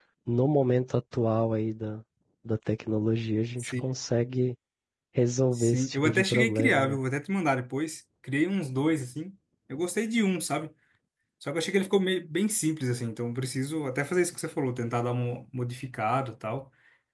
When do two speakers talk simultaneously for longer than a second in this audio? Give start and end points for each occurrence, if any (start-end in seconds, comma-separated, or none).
5.5-6.9